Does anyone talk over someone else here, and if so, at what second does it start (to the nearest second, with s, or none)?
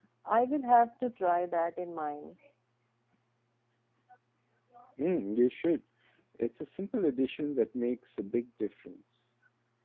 none